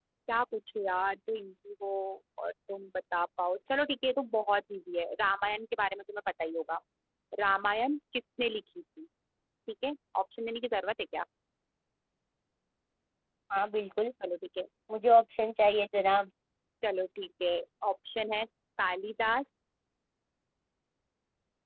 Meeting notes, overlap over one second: none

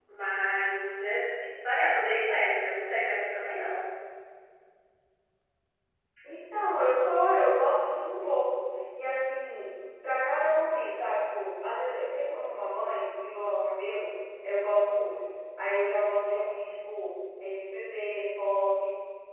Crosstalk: none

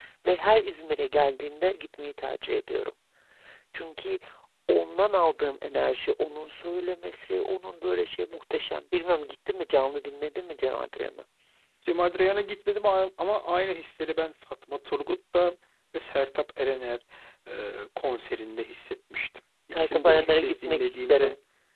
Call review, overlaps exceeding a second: present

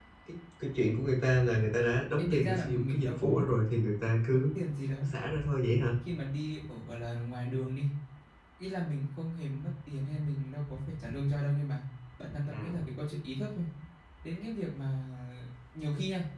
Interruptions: present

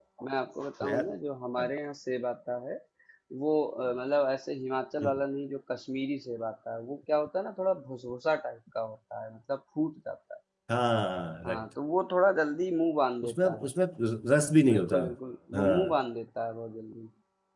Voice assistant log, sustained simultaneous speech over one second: none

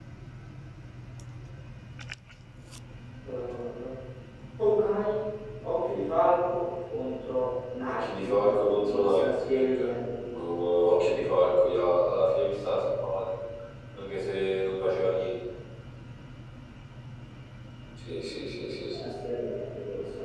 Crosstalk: present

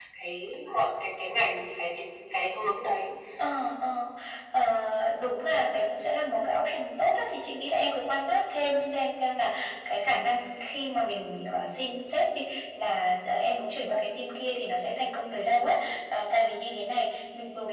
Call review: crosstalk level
none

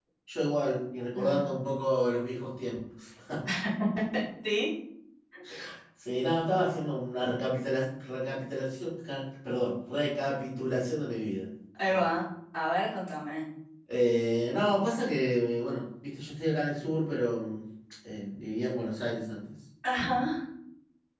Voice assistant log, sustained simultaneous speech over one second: none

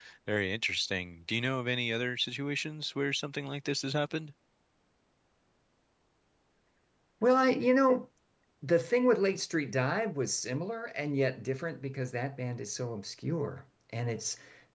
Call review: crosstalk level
none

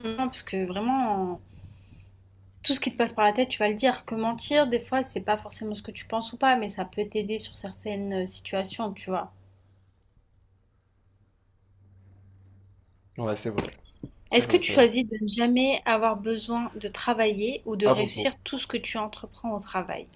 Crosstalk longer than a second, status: none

